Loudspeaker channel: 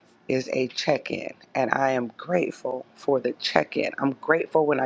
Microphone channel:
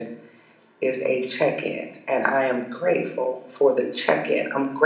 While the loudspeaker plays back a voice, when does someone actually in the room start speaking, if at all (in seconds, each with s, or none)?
none